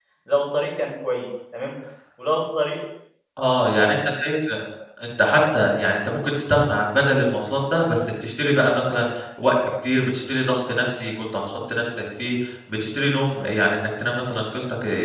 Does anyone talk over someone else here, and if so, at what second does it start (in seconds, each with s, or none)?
none